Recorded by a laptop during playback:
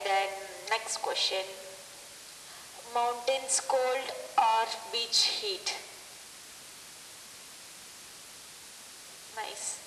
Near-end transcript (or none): none